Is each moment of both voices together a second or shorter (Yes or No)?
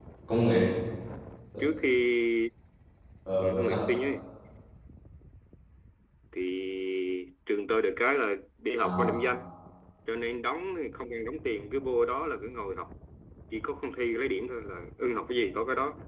Yes